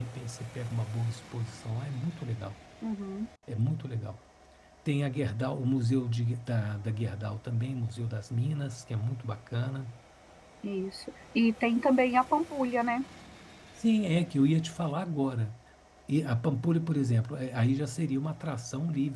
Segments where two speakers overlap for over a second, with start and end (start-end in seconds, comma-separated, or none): none